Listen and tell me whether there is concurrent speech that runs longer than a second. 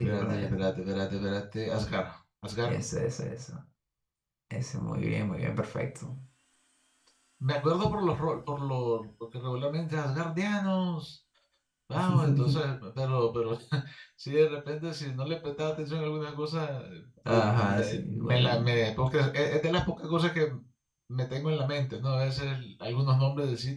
Yes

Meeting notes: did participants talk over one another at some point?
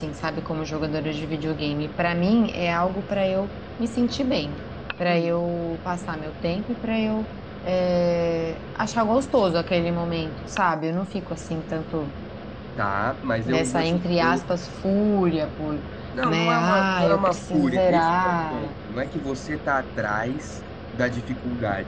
Yes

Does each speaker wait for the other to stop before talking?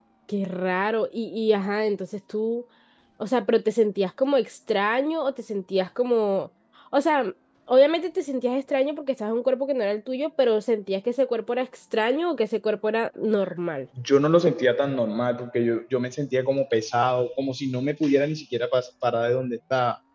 Yes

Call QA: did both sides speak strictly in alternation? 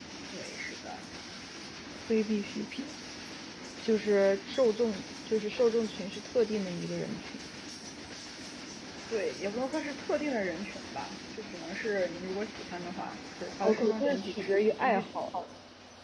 No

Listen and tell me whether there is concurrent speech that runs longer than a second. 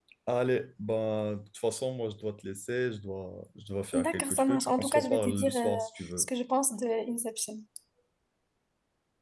Yes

